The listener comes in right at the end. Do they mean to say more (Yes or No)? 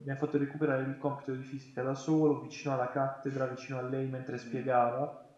No